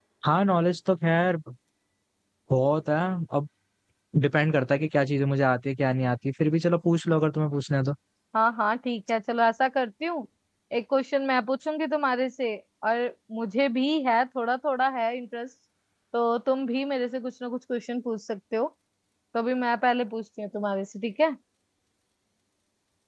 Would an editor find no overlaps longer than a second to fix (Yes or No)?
Yes